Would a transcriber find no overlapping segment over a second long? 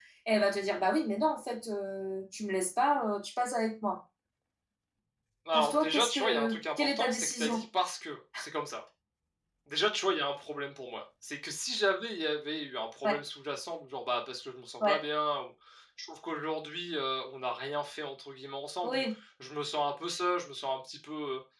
No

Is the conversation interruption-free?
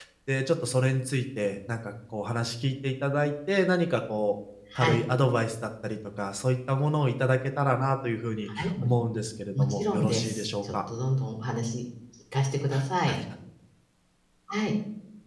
No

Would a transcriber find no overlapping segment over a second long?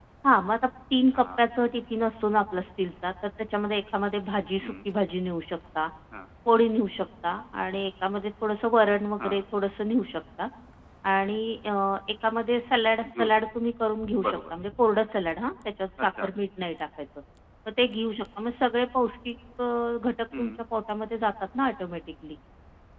Yes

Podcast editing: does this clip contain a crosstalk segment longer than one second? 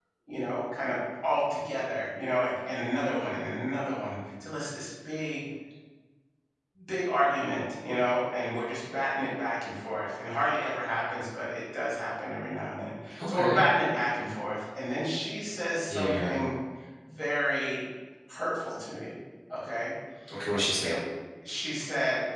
No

